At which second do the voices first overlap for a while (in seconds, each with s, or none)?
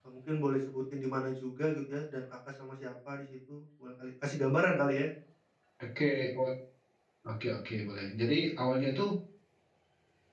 none